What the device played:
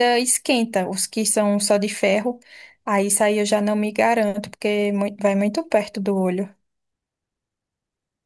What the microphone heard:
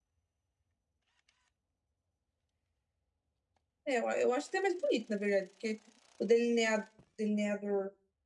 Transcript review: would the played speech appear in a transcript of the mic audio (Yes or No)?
No